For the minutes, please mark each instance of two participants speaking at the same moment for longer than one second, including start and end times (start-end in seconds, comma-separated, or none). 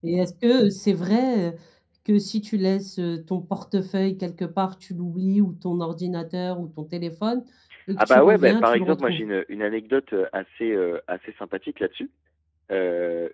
8.0-9.2